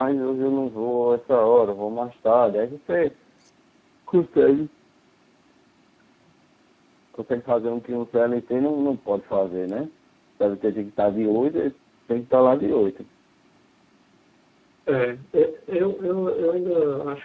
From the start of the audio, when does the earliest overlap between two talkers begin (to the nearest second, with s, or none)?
none